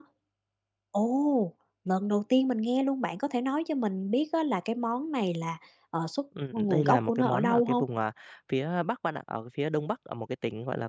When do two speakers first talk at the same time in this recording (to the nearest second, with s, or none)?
6 s